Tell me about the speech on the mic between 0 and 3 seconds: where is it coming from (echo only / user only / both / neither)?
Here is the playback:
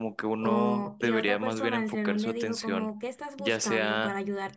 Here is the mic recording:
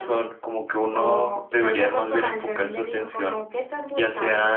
echo only